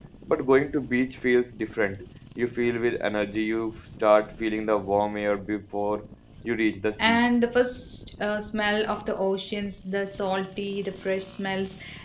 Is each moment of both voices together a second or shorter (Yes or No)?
Yes